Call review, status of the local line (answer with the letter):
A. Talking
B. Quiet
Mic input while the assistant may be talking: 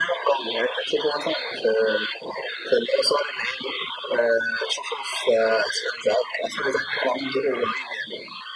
B